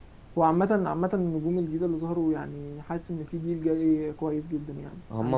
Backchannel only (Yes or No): No